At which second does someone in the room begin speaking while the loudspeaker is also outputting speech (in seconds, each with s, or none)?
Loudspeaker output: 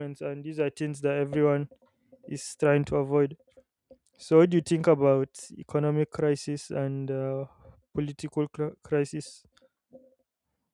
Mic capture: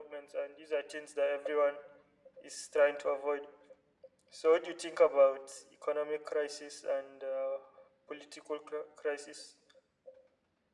none